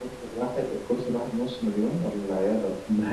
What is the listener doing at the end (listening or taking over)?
taking over